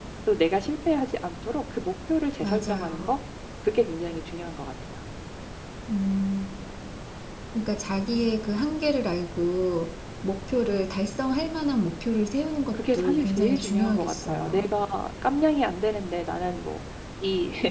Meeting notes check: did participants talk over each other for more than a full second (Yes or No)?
Yes